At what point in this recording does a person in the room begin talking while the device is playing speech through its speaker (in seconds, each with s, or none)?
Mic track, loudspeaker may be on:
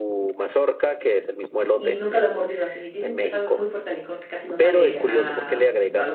1.7 s